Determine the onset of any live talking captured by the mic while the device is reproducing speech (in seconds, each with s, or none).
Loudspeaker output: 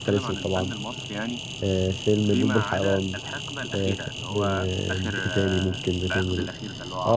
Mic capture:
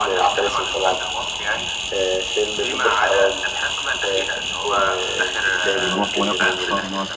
5.7 s